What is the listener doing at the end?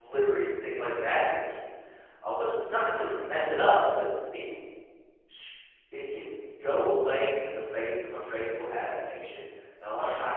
listening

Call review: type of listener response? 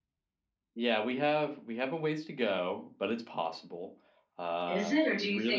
taking over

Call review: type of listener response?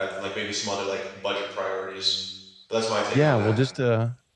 taking over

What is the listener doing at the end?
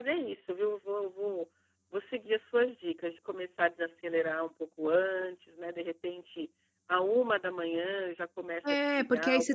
taking over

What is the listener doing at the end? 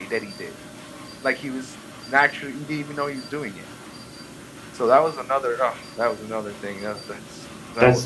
taking over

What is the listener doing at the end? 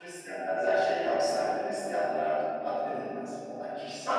taking over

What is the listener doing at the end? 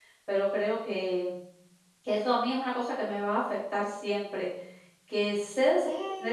listening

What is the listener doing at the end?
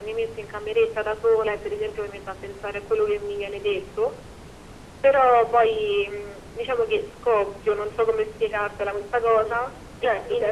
taking over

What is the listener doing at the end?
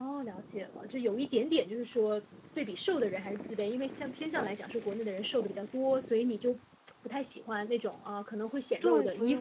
taking over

